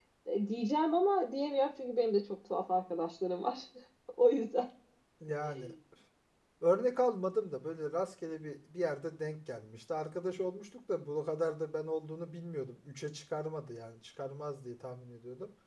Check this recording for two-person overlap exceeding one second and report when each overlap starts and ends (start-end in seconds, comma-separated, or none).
none